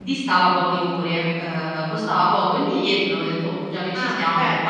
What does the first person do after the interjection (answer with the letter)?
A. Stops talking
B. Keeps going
A